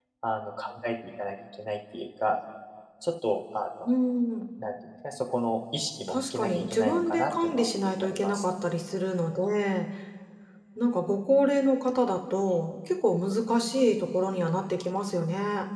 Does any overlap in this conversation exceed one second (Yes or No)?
Yes